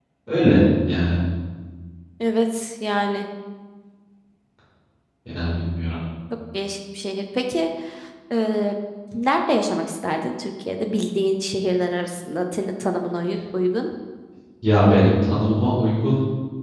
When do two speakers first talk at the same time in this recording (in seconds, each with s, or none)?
none